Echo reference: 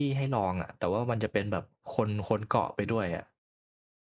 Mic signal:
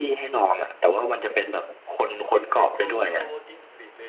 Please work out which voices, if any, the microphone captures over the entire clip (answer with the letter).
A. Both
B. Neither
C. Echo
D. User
A